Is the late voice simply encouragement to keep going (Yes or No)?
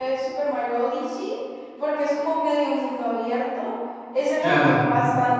Yes